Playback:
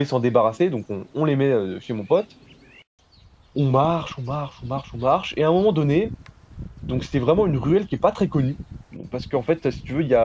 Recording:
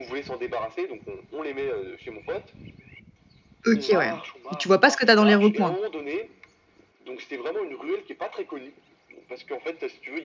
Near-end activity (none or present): present